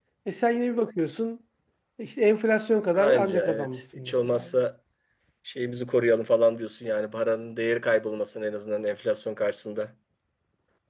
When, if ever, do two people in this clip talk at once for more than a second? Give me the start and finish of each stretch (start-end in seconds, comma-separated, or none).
3.0-4.5